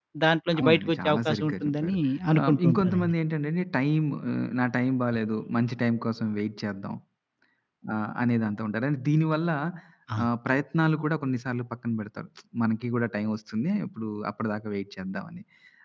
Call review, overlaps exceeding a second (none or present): present